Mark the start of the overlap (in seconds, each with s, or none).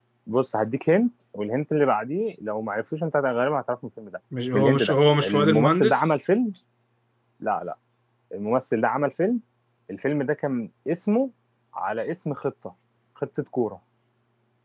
4.3 s